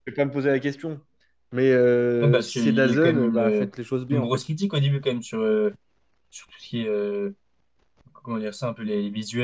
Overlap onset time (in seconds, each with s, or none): 2.2 s